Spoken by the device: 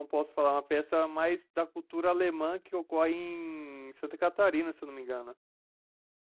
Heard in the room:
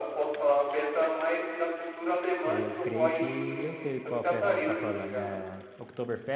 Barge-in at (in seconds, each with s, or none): 2.4 s